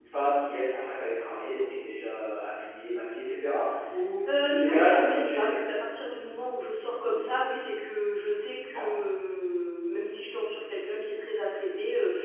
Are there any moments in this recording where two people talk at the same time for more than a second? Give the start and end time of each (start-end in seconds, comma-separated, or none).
4.3-5.6